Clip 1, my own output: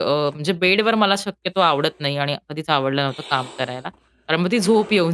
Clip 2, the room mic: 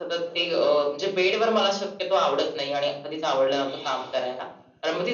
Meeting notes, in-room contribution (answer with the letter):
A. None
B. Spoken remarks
A